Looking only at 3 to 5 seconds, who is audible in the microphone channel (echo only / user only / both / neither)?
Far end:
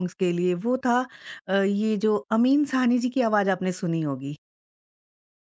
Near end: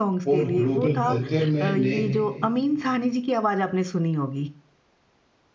echo only